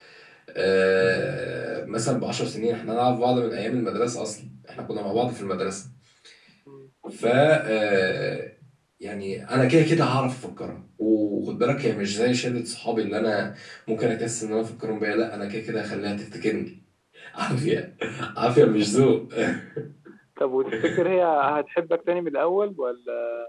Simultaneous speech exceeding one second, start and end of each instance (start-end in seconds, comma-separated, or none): none